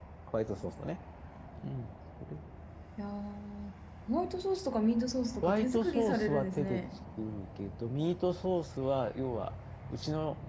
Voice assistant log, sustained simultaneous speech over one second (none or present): present